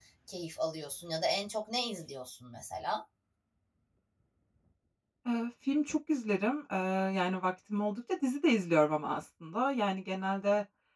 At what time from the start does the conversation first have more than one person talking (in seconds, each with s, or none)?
none